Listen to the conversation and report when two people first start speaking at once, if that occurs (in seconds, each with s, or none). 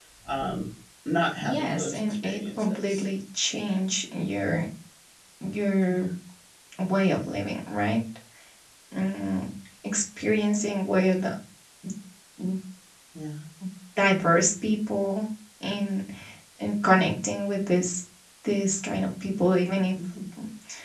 1.4 s